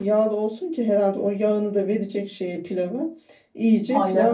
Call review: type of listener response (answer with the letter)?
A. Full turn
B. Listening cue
B